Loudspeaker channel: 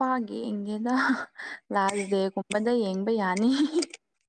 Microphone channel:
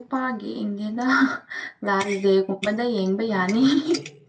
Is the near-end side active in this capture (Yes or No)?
Yes